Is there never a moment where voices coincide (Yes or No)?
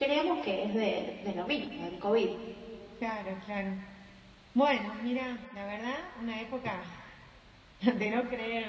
Yes